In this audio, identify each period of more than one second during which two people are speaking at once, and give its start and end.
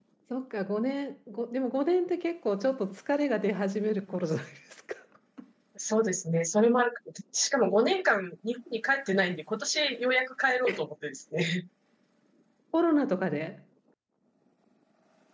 none

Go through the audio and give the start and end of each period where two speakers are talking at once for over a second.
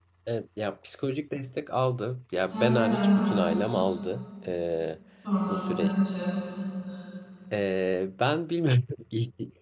2.4-3.8

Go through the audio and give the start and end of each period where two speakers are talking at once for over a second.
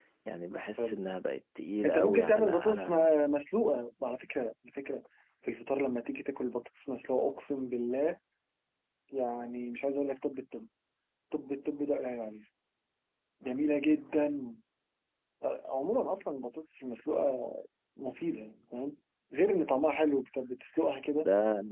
1.8-3.0

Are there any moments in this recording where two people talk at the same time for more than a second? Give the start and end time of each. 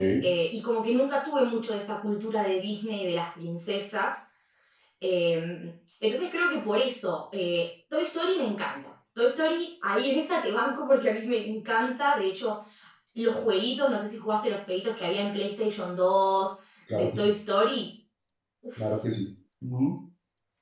none

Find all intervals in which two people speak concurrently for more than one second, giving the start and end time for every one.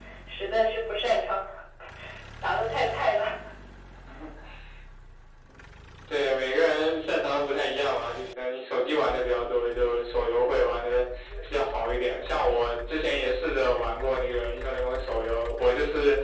none

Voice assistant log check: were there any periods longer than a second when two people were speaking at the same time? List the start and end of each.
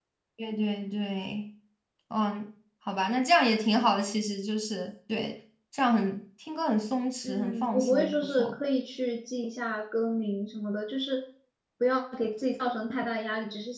7.2-8.6

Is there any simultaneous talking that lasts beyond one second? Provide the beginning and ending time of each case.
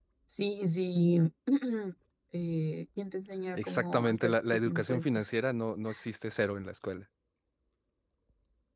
3.5-5.4

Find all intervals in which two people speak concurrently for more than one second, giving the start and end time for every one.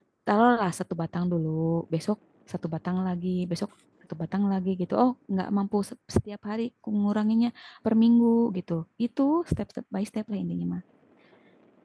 none

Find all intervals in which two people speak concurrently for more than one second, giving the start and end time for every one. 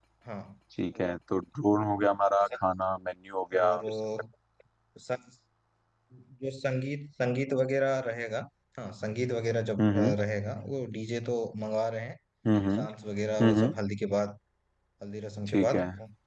none

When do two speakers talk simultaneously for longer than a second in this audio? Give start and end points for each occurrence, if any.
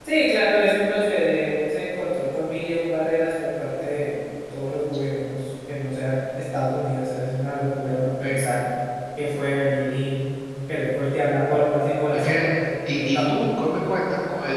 none

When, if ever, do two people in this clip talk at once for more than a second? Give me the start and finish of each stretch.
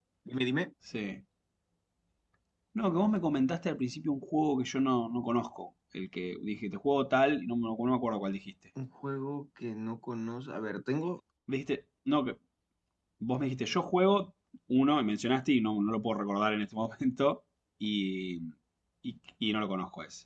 none

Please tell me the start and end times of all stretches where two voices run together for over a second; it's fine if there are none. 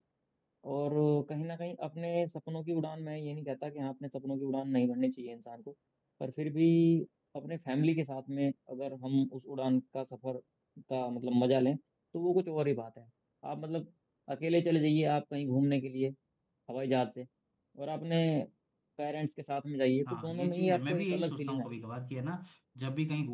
20.1-21.8

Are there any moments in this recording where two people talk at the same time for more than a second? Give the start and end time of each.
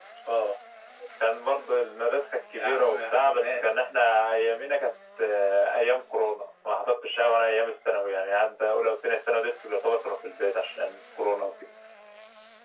2.5-3.9

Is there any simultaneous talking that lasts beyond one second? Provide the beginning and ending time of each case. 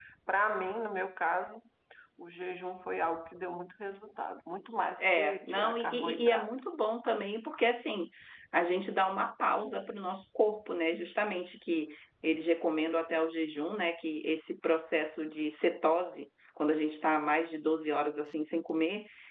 5.0-6.5

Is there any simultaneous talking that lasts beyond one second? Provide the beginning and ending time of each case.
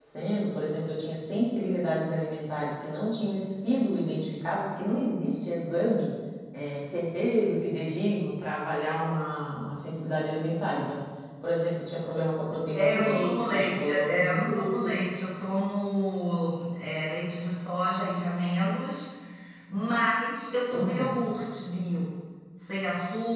12.8-15.0

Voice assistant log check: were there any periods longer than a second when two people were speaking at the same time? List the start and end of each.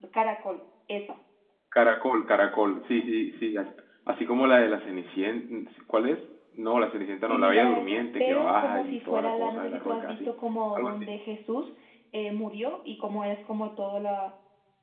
7.3-10.3

